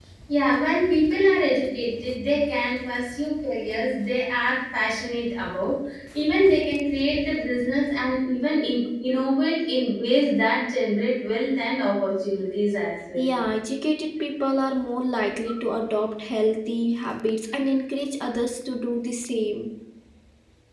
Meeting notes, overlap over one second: none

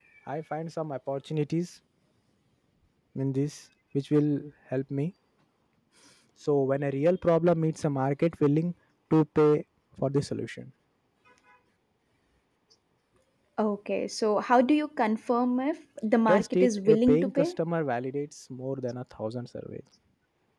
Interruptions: present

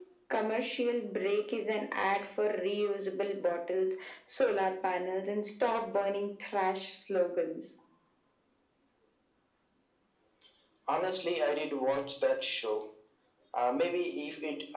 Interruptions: none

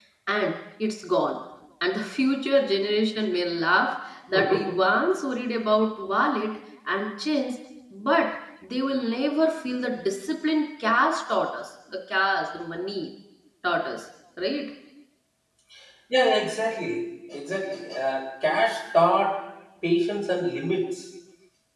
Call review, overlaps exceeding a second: none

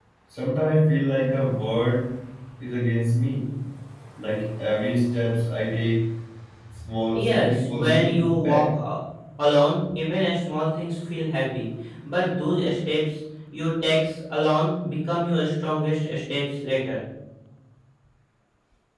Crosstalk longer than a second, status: present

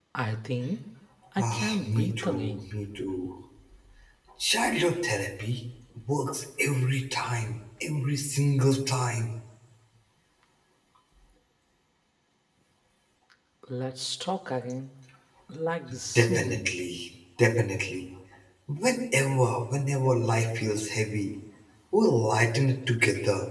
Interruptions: present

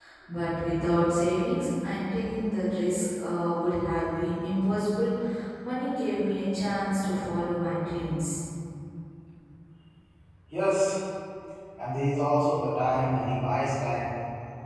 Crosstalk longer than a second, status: none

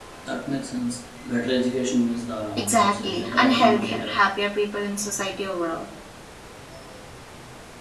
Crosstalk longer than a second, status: present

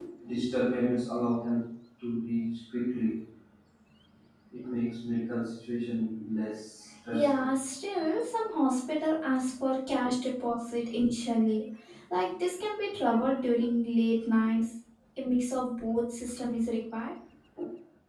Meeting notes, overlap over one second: none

